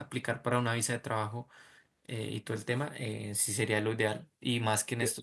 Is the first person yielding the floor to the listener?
No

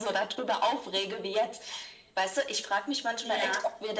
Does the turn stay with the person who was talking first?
Yes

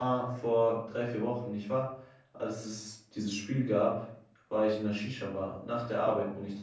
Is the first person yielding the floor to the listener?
No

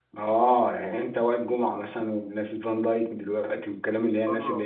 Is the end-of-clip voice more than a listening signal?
Yes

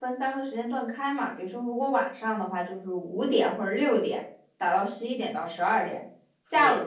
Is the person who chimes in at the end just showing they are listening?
Yes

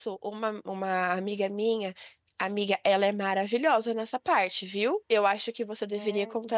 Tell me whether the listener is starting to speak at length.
No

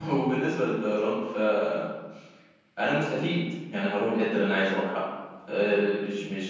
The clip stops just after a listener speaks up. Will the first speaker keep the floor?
Yes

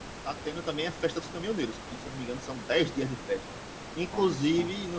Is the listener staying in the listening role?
Yes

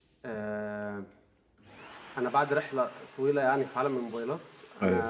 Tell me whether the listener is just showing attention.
Yes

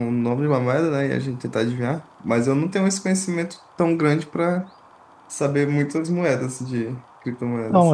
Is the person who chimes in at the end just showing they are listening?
No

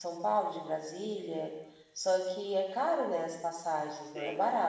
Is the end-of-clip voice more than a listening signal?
Yes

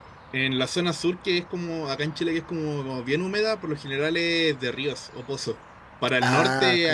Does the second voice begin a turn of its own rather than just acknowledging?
No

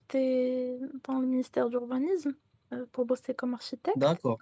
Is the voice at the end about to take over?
No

